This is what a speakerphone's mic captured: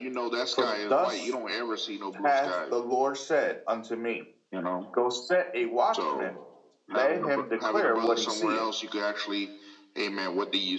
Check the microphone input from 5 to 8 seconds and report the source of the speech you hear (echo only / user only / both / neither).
both